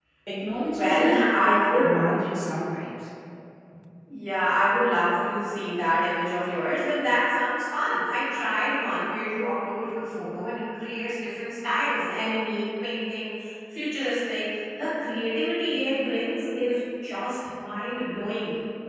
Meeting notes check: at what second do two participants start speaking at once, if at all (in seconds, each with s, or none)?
0.7 s